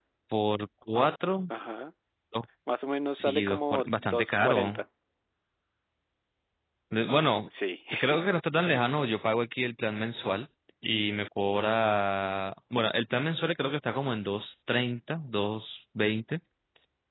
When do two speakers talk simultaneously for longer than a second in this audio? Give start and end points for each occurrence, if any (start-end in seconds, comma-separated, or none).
3.1-4.8